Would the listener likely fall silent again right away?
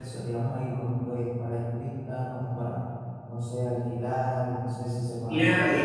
No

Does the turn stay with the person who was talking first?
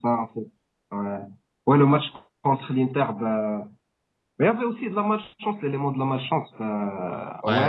Yes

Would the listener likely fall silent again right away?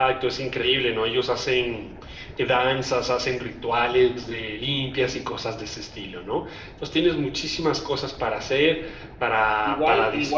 No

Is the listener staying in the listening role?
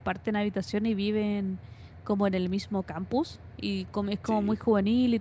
Yes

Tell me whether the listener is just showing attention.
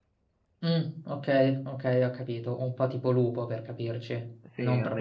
No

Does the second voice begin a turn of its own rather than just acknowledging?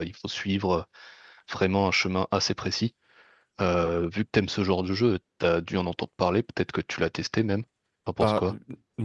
Yes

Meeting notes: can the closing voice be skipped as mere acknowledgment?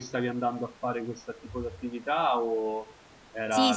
No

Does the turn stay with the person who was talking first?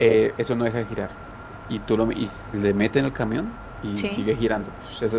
Yes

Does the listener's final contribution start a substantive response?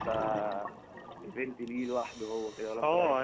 Yes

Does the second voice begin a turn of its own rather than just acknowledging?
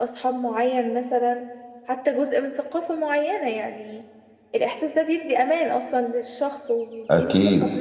Yes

